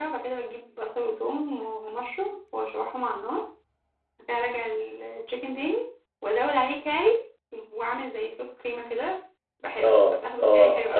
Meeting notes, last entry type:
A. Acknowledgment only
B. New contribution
B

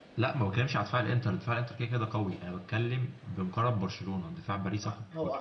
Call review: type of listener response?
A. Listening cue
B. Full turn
B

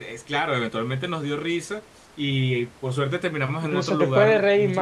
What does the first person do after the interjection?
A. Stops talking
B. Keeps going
A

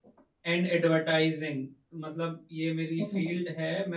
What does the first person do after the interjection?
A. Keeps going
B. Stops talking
A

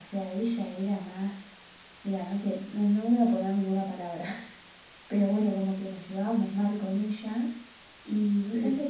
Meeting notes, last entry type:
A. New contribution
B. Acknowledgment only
B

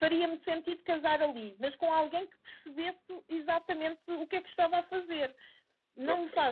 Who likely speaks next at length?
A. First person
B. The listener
A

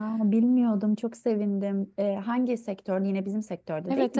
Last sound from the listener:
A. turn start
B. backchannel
A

